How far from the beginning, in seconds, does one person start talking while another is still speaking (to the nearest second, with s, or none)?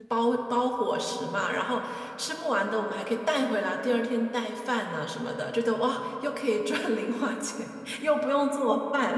none